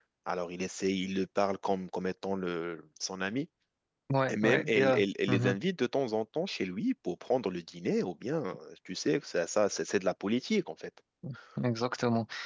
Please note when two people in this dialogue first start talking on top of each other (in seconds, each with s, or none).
4.3 s